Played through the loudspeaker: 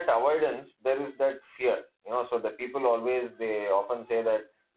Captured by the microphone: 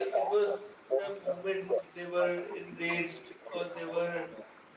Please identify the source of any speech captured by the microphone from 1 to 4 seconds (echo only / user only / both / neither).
both